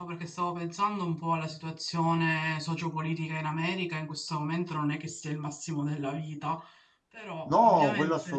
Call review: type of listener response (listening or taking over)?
taking over